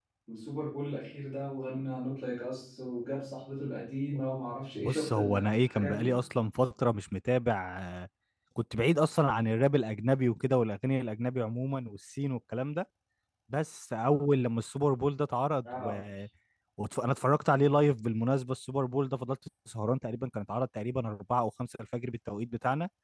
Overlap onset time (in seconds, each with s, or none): 4.8 s